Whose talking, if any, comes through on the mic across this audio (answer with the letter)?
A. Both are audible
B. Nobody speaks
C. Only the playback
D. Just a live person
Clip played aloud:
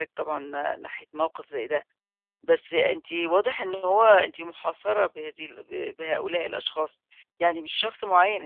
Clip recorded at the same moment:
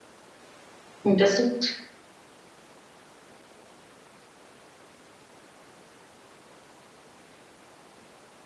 D